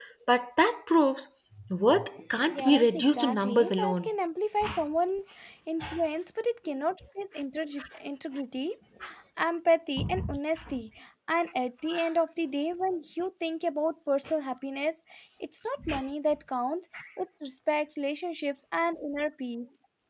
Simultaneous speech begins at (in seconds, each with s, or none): 2.5 s